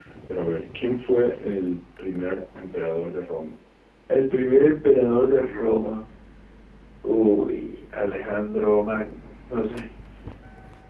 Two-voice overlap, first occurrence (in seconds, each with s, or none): none